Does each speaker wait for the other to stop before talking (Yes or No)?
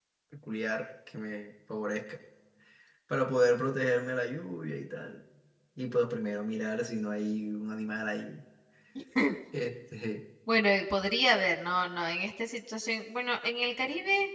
Yes